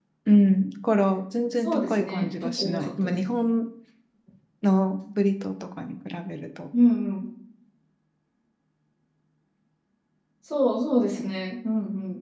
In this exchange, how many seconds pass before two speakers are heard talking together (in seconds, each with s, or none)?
1.6 s